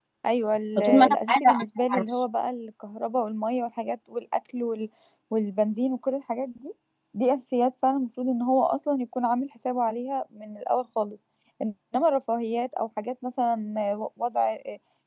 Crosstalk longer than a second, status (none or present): present